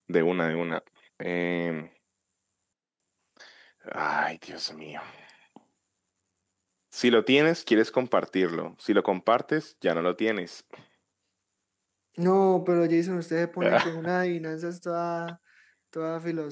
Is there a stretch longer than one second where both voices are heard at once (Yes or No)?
No